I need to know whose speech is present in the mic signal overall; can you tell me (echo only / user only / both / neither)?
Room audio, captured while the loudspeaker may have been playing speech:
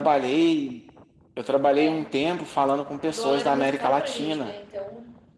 echo only